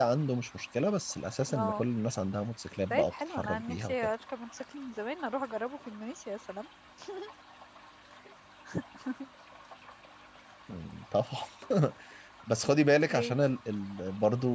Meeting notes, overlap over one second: present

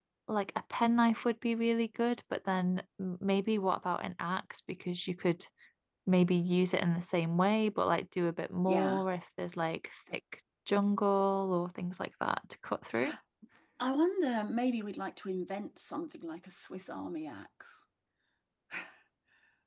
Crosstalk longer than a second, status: none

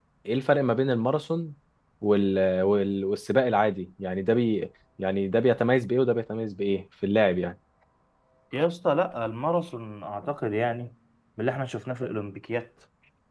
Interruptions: none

